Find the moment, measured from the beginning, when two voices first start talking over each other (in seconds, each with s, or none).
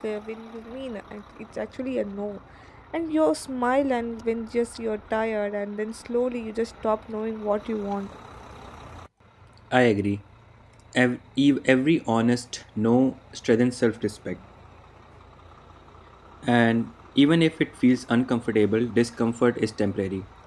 none